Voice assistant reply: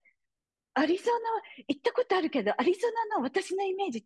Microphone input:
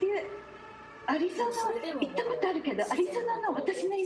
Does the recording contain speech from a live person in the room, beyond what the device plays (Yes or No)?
Yes